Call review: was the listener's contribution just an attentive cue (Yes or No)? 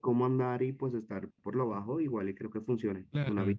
No